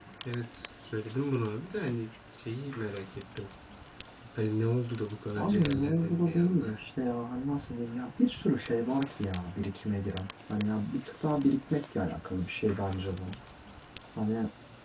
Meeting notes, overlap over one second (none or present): present